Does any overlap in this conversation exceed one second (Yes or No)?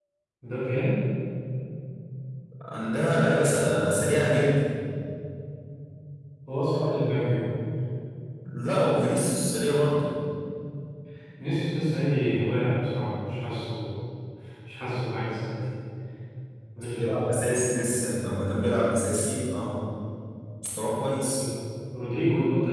No